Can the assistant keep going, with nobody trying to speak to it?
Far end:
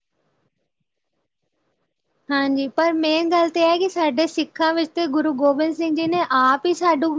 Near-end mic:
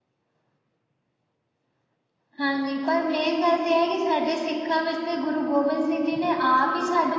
Yes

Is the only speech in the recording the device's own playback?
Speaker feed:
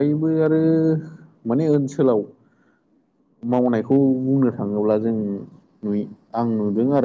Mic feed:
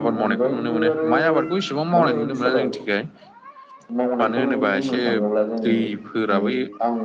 No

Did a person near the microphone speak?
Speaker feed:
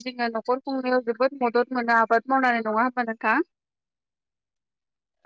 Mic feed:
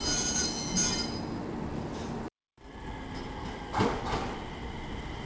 No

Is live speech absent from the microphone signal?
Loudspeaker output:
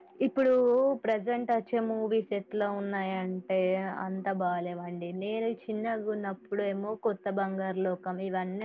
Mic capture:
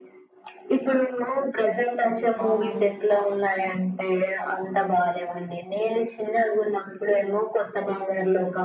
No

